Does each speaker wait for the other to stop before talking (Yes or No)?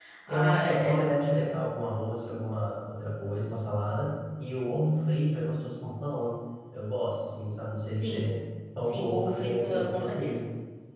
No